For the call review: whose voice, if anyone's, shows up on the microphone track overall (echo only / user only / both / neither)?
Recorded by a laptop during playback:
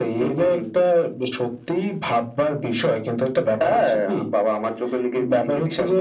echo only